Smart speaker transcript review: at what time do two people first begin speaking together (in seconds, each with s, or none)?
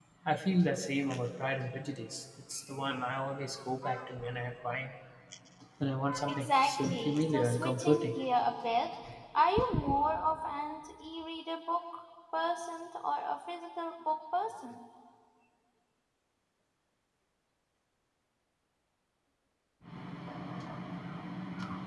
6.3 s